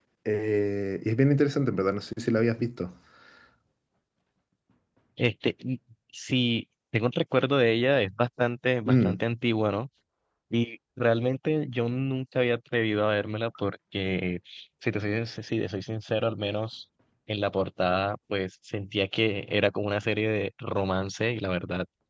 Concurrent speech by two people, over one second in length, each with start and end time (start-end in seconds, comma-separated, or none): none